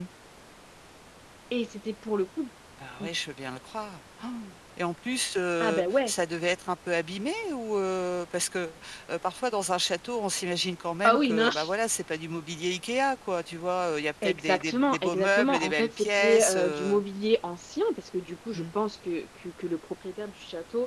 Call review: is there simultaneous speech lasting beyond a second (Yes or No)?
Yes